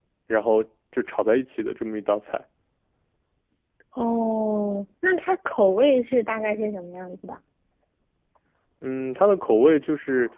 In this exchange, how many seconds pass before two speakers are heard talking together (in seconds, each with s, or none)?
none